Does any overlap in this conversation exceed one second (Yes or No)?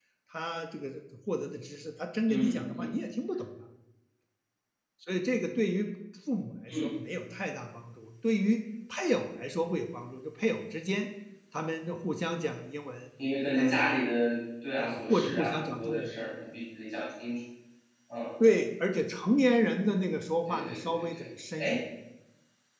Yes